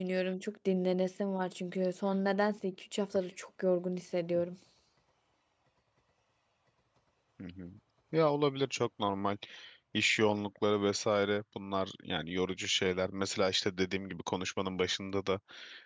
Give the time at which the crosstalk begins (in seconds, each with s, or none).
none